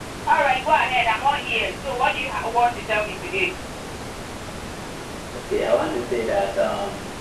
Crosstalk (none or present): none